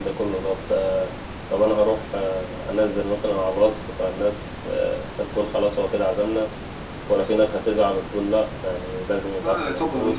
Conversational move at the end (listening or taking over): taking over